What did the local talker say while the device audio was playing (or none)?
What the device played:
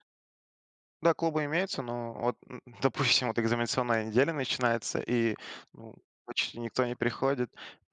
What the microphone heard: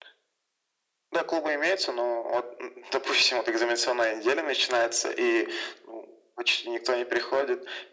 none